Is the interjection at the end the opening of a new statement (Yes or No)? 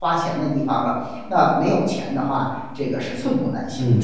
Yes